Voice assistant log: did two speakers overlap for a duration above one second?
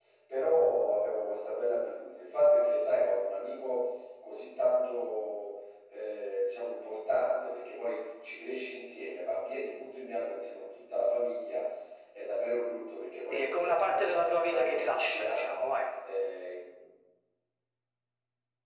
Yes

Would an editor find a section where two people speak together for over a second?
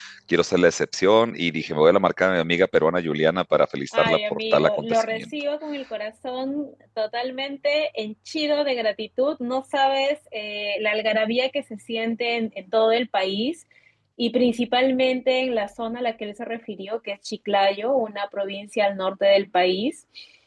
Yes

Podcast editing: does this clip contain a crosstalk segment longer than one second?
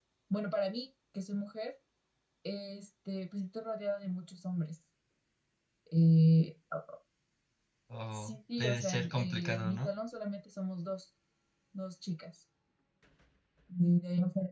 Yes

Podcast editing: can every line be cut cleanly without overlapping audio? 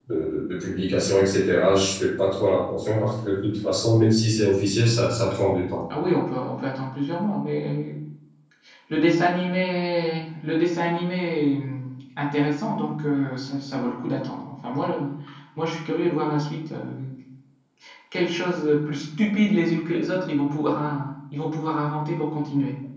Yes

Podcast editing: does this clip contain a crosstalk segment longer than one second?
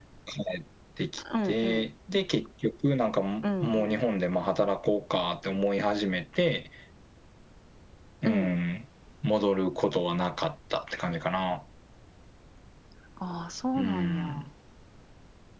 No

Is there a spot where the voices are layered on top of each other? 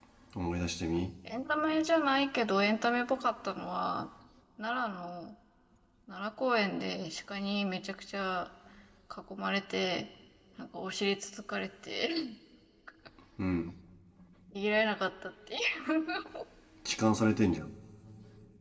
No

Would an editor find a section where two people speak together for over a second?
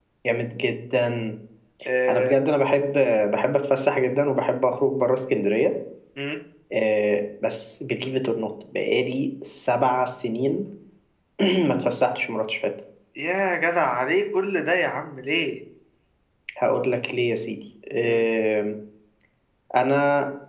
No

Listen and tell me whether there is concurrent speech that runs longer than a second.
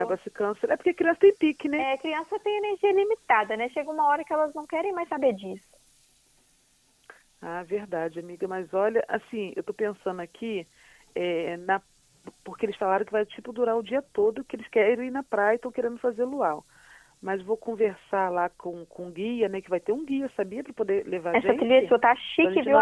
No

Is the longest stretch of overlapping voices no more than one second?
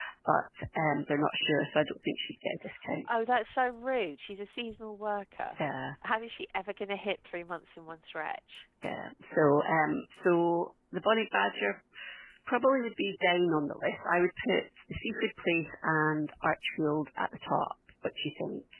Yes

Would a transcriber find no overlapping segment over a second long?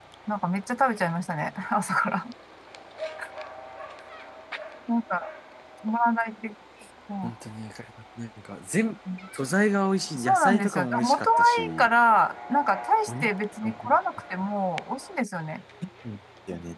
No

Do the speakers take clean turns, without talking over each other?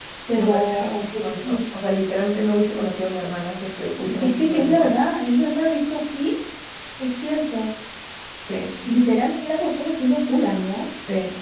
No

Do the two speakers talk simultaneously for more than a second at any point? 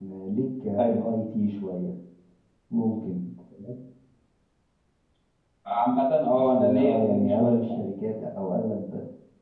Yes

